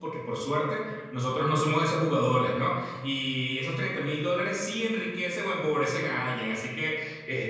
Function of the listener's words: listening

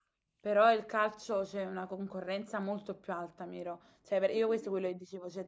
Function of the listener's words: listening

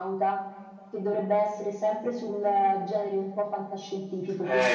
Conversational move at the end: taking over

